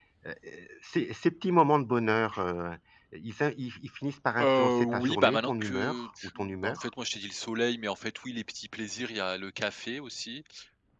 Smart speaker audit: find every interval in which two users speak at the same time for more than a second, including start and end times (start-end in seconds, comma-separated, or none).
4.4-6.9